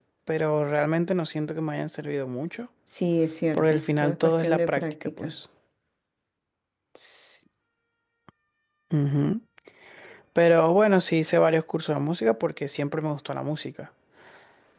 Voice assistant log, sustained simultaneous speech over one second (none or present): present